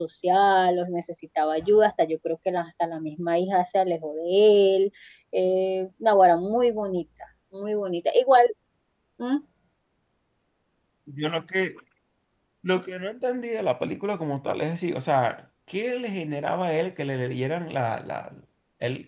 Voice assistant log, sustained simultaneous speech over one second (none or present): none